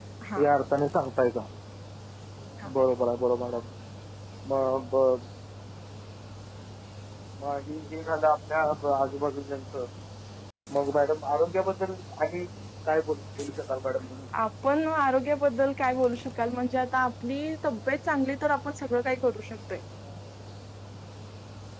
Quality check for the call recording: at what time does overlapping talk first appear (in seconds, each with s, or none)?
none